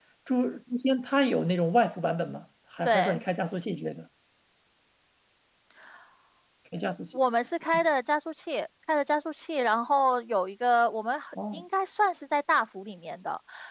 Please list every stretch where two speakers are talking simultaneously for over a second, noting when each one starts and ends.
none

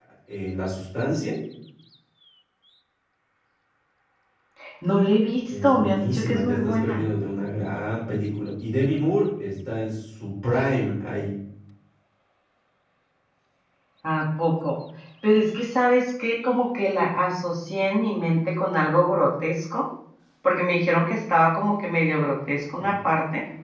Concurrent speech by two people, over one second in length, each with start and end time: 5.5-7.0

